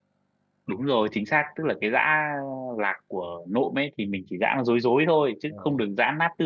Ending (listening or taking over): listening